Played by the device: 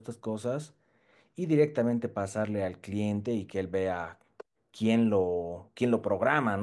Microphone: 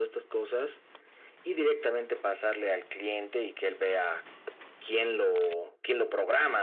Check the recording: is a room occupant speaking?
No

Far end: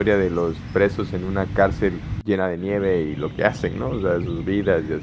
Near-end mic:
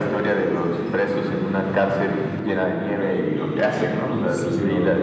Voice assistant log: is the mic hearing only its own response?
No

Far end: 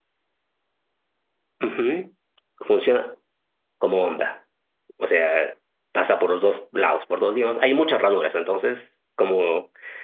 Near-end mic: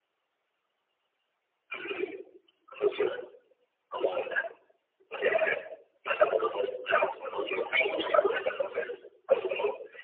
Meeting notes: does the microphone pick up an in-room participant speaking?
No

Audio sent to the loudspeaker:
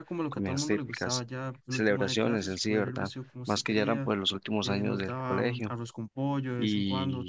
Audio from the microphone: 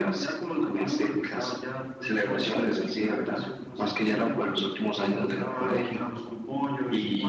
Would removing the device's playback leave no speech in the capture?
Yes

